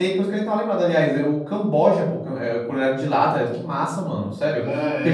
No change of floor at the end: No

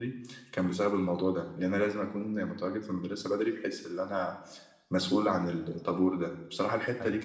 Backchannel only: Yes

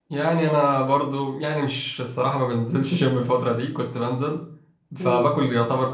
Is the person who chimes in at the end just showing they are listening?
Yes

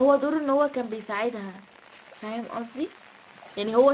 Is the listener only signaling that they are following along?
Yes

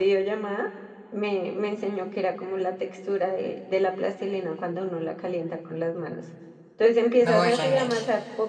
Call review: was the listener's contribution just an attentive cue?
Yes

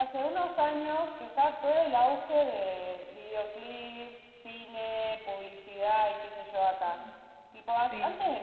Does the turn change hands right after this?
No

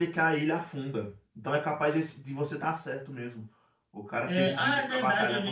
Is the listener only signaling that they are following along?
No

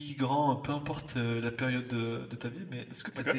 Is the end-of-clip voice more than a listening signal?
No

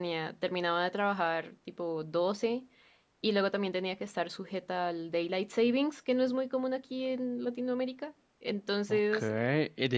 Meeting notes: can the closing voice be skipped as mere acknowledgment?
No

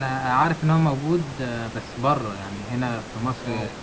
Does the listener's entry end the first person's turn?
Yes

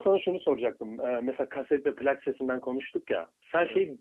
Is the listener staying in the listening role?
Yes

